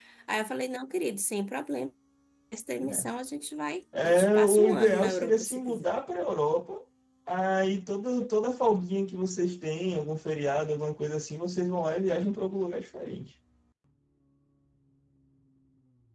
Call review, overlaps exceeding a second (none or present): present